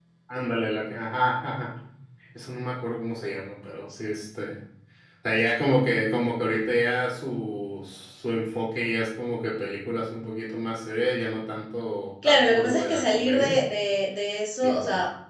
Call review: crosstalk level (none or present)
present